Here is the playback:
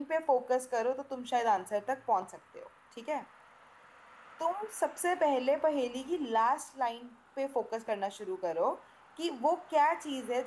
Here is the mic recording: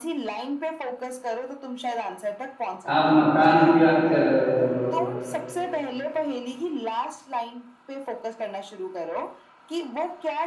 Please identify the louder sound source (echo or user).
user